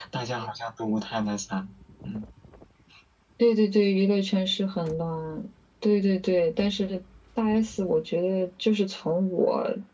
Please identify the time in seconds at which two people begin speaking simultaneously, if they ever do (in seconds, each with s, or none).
none